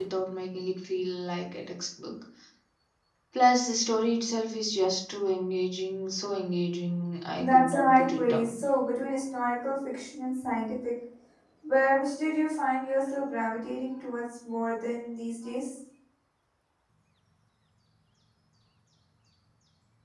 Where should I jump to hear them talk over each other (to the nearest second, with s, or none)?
7 s